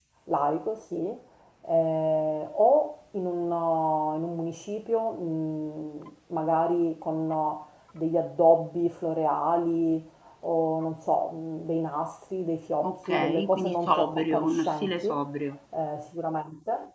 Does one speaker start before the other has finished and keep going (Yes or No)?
Yes